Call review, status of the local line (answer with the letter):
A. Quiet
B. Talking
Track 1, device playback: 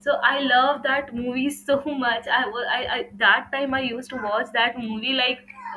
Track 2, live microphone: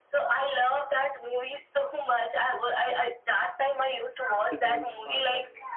B